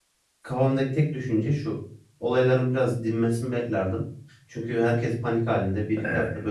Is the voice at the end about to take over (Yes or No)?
No